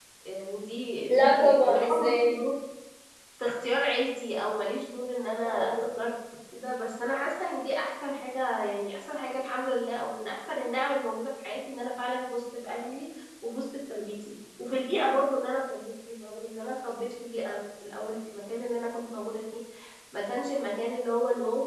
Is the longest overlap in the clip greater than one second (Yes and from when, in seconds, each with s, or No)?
Yes, from 1.1 s